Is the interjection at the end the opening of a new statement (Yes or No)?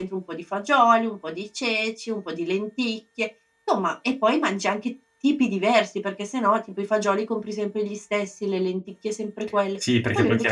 Yes